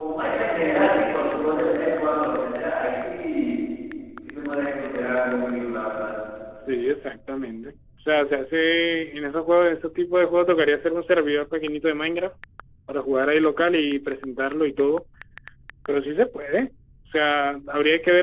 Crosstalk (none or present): none